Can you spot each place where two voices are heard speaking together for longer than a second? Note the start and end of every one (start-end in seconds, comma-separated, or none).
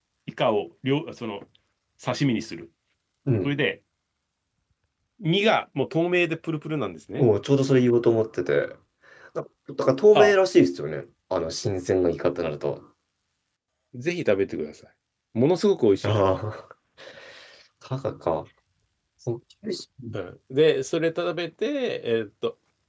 none